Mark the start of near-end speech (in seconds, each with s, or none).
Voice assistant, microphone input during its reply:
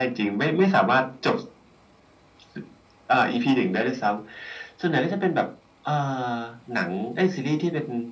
none